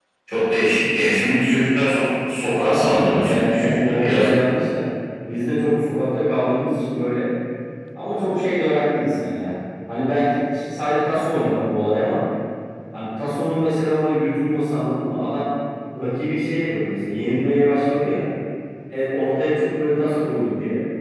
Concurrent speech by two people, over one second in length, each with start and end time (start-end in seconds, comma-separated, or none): 2.5-4.3